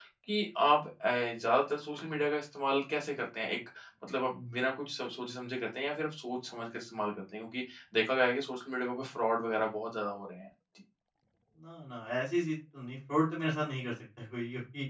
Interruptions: none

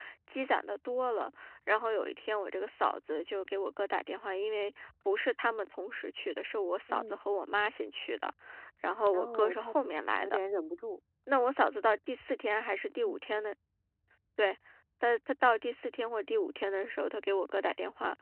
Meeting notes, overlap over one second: present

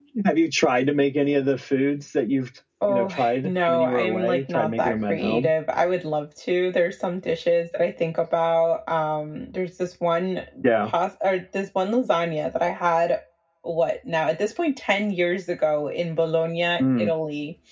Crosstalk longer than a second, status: present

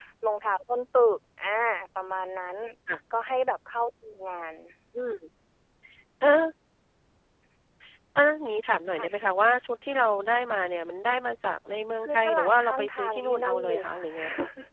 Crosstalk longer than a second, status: present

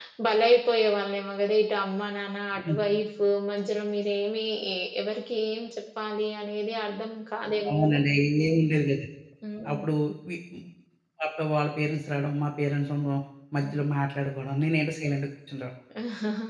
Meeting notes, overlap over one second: none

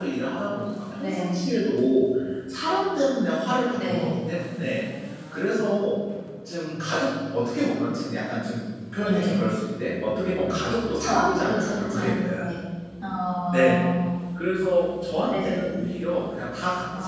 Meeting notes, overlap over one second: present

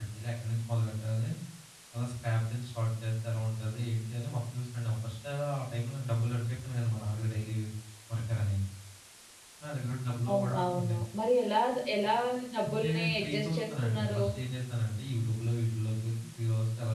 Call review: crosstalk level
present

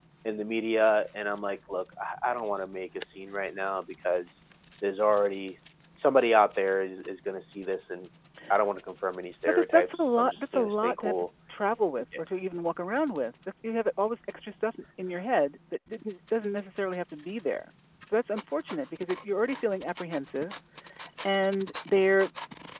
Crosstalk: present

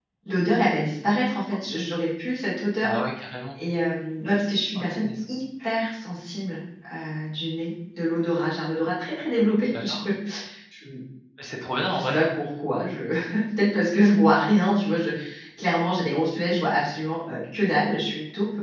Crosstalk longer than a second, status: none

